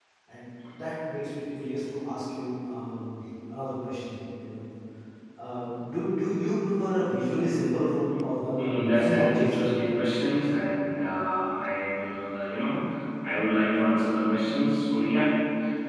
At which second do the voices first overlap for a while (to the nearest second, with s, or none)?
9 s